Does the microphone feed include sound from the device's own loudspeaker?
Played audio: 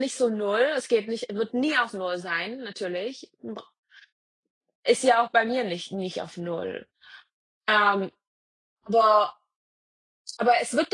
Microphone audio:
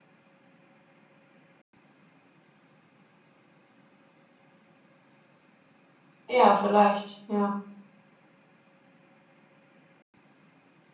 No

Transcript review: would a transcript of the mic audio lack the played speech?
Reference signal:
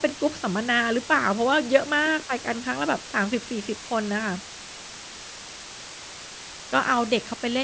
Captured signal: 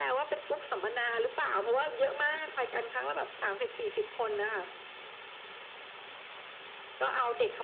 No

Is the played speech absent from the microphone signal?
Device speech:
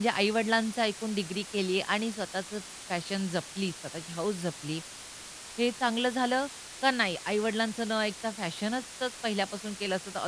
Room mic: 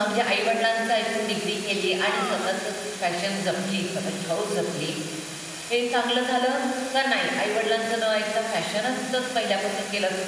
No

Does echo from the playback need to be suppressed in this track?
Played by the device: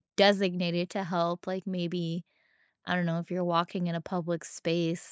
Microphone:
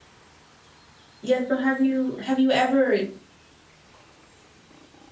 No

